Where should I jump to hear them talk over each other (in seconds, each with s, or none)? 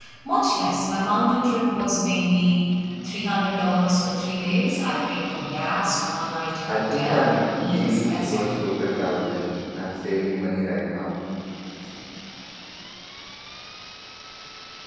6.7 s